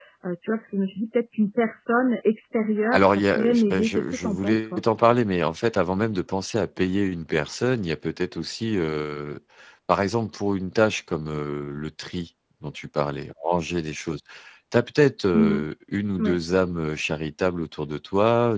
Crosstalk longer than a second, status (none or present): present